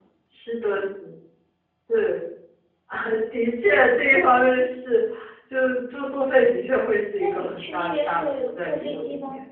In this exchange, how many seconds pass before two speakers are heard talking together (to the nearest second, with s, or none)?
7 s